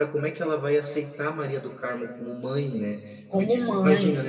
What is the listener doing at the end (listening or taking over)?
listening